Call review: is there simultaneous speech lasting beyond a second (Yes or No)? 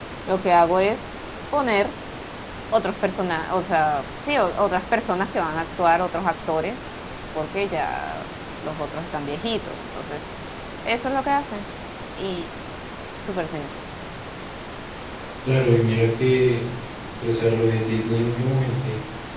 No